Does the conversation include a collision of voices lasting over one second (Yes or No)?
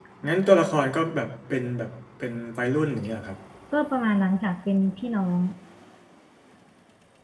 No